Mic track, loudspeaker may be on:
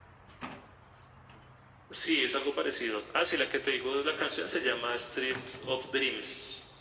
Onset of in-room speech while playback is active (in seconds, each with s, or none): none